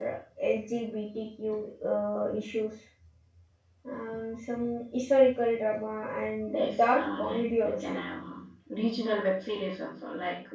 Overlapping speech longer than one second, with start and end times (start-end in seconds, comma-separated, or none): 6.5-7.9